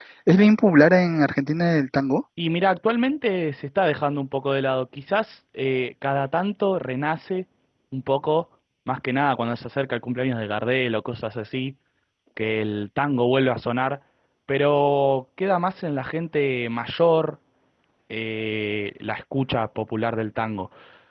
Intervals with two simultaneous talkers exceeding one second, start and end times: none

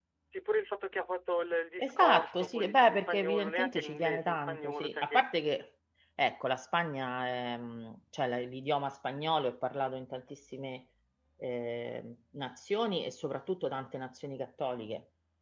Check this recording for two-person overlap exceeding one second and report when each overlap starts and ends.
1.8-5.2

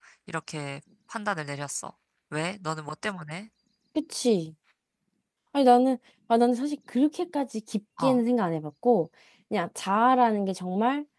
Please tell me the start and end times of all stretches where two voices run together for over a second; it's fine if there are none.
none

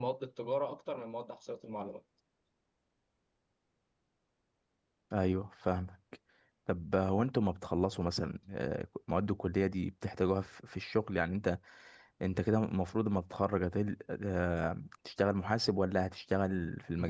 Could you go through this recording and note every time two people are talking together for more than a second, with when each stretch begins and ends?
none

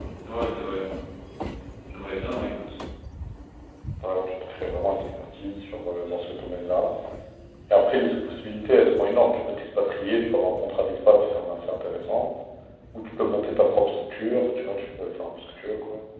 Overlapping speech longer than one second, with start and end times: none

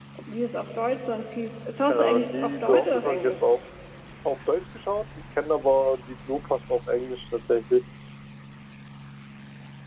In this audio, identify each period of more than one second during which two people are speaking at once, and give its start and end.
1.9-3.4

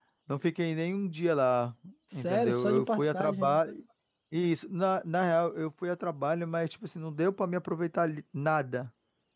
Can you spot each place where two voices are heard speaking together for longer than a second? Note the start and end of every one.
2.1-3.6

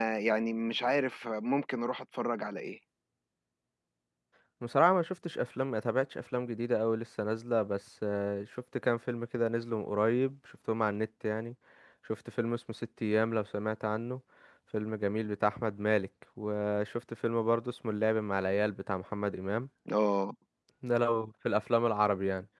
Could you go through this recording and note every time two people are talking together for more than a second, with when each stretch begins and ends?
none

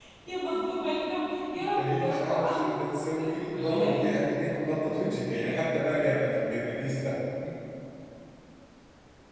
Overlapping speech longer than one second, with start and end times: 1.8-4.0

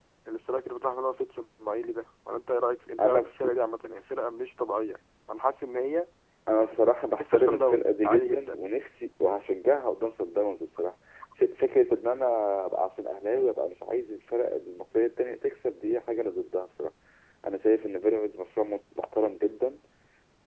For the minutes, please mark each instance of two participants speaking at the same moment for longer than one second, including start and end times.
7.2-8.6

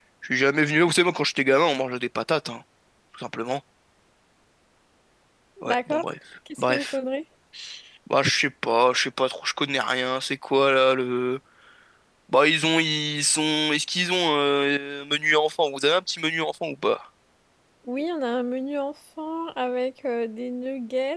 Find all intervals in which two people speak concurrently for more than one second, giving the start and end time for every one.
none

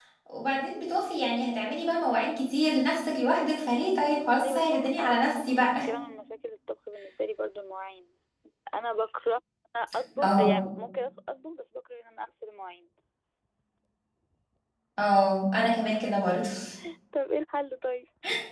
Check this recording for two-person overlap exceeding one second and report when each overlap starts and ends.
4.4-5.9

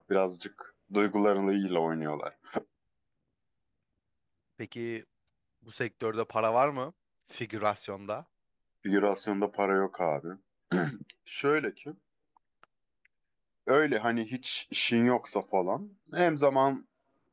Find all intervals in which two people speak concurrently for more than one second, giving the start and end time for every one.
none

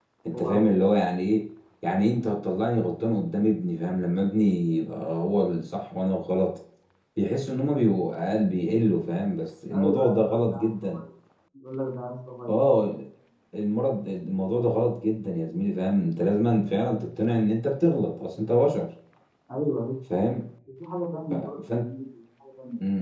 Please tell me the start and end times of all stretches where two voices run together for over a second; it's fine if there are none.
9.7-11.0

